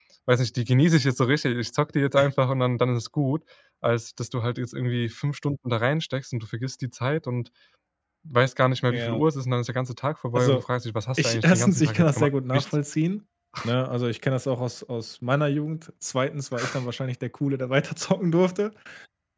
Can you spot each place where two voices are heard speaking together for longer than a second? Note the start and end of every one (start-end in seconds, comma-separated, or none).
11.2-12.6